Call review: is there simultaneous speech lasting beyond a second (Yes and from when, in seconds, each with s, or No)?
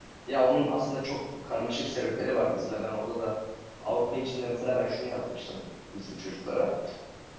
No